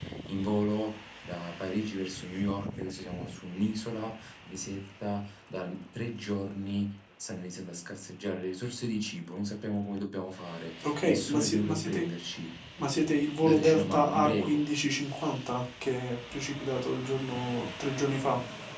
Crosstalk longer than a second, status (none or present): present